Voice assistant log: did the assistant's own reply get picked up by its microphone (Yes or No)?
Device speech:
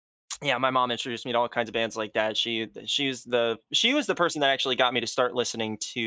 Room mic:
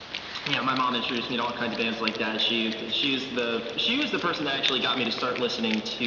Yes